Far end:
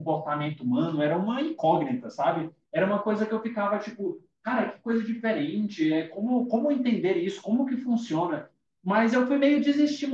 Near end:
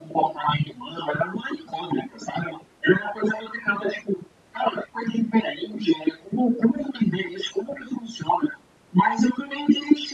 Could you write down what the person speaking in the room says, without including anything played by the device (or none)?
none